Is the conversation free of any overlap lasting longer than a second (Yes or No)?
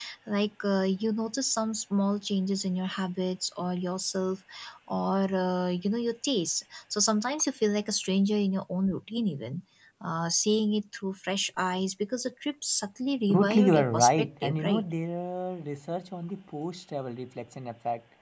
No